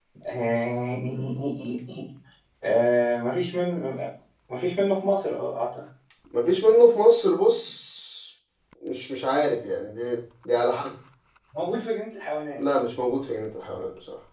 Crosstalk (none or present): none